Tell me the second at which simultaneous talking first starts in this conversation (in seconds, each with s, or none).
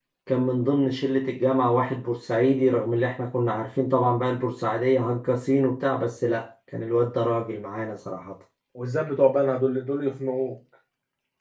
none